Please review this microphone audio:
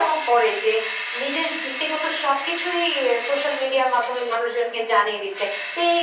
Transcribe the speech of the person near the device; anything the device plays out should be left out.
none

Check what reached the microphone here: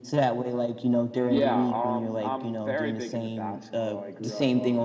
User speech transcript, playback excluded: none

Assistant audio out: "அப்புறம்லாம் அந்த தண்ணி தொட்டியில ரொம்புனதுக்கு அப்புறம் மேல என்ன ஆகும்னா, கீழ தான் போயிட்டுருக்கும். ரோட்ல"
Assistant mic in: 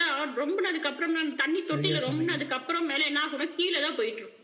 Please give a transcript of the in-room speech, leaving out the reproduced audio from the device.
சரியா சொன்னீங்க.

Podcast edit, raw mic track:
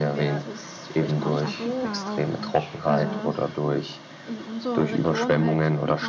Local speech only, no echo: Nordafrika auch und also

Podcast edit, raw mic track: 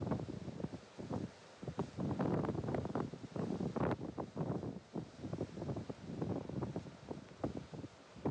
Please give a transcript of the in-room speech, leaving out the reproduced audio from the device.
none

